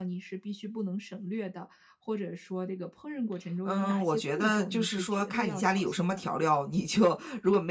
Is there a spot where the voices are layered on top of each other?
Yes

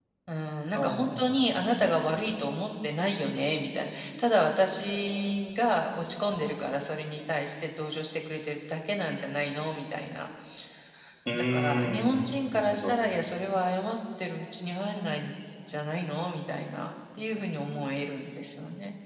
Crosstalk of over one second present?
Yes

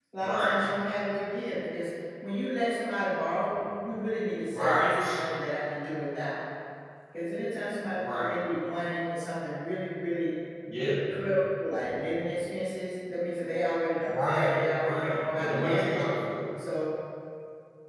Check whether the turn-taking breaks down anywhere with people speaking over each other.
Yes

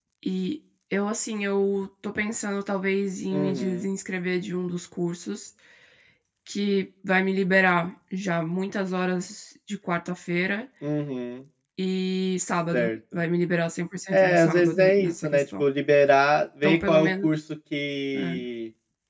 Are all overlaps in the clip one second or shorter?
No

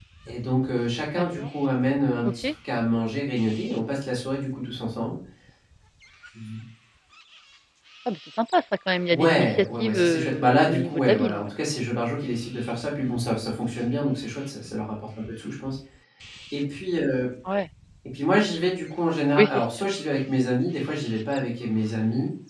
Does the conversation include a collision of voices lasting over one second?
Yes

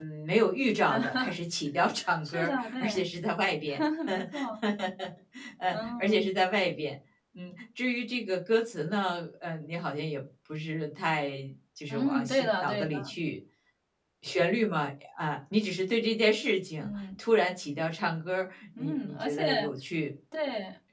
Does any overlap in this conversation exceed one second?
Yes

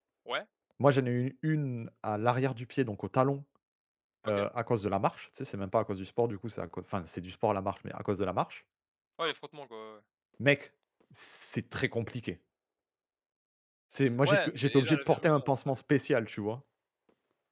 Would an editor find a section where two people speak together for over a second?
Yes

